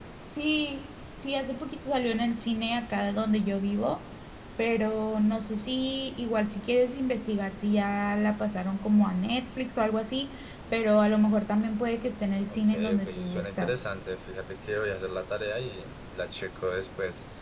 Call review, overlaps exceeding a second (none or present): present